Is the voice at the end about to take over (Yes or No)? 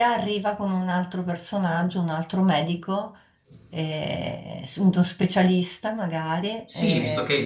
Yes